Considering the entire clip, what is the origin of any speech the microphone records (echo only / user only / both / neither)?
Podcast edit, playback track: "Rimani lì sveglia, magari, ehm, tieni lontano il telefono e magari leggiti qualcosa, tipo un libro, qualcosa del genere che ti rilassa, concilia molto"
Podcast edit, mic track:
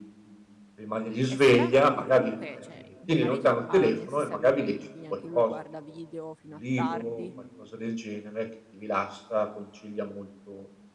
both